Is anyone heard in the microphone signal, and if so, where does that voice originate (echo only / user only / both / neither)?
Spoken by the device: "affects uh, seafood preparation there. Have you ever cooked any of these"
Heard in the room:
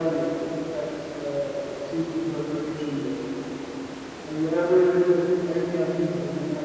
echo only